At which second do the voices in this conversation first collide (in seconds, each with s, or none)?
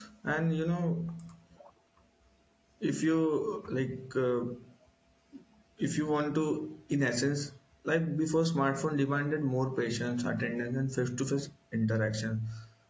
none